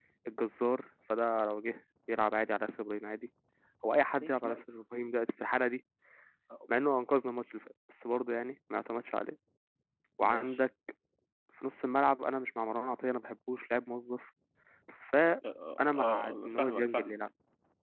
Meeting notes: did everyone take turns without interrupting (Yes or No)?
No